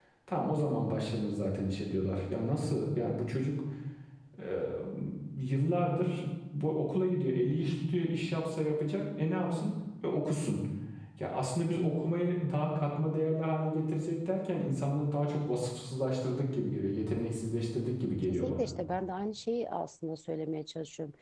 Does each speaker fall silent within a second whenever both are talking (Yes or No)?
Yes